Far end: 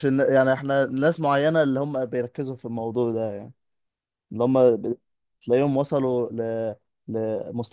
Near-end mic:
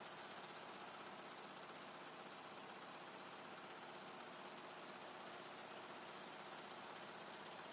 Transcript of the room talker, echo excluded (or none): none